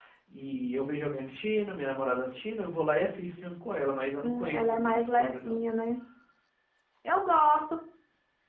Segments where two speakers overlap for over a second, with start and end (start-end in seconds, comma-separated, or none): 4.2-5.6